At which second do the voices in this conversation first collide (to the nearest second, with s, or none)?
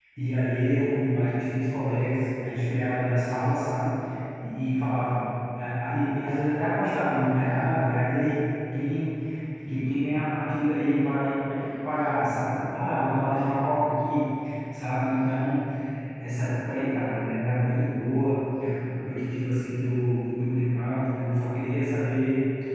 none